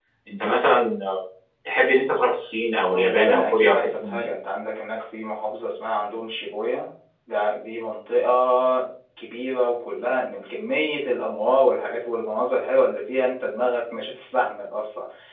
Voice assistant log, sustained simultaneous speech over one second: present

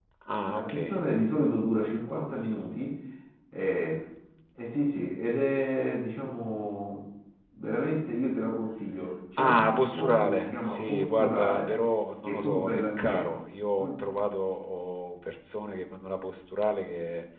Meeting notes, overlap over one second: present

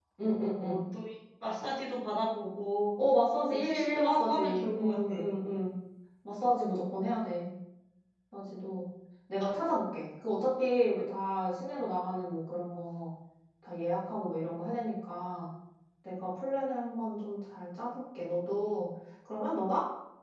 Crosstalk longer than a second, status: present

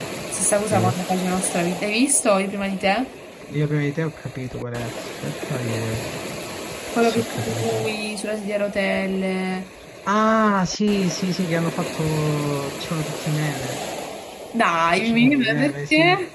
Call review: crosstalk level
present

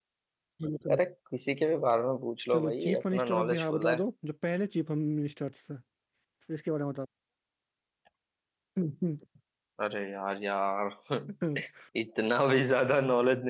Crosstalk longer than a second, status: present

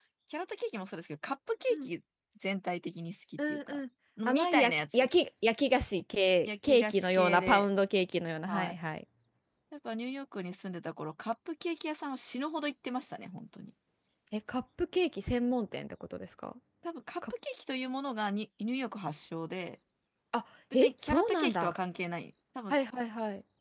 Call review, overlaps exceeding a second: present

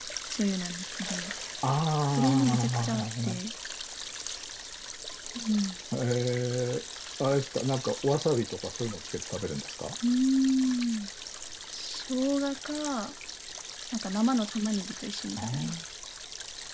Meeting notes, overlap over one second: present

